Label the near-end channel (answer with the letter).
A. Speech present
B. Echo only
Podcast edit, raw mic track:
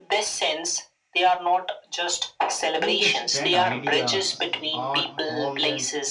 A